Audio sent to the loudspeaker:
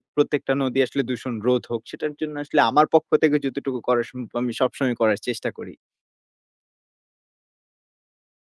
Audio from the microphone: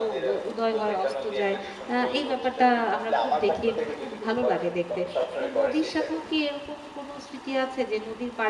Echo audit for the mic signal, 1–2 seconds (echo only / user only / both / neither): both